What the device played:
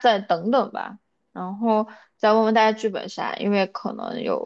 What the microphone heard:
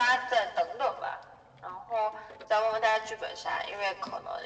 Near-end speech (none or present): none